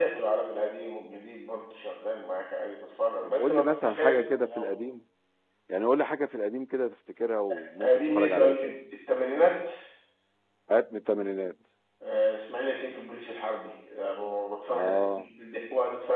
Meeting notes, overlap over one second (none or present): present